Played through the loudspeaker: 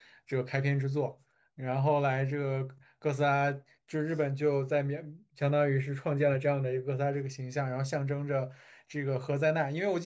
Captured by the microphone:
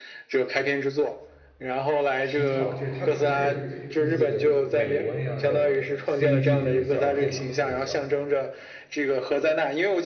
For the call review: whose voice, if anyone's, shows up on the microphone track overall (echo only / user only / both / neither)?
both